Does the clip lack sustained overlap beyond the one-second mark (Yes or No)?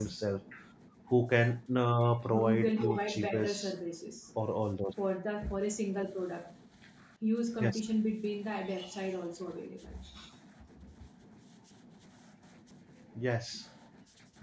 No